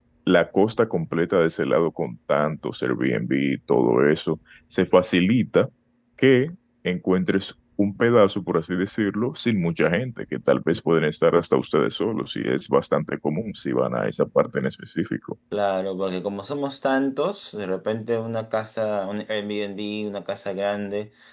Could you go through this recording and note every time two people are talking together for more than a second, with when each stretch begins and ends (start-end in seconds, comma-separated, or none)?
none